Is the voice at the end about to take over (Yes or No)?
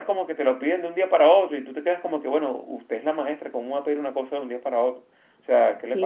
Yes